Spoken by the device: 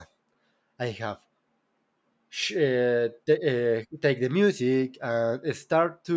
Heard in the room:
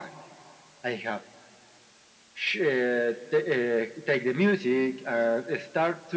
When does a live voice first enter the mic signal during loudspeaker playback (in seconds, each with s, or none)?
none